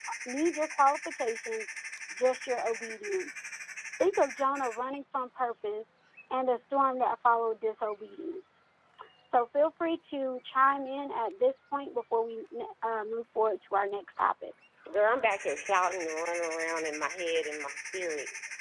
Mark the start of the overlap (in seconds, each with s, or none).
none